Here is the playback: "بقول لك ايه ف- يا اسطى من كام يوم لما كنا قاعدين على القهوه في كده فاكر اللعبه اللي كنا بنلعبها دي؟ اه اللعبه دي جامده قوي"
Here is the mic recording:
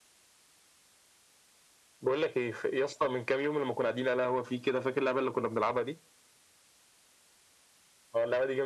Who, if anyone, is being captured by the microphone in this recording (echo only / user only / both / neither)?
echo only